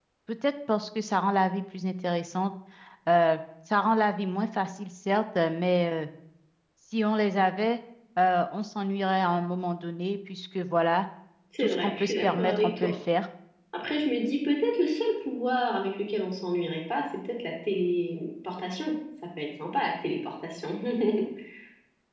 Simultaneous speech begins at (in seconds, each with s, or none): 11.6 s